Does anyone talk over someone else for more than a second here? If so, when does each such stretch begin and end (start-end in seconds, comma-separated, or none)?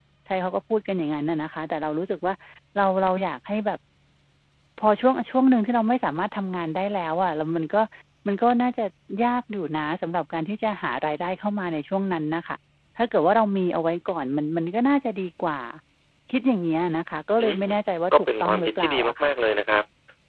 18.1-19.3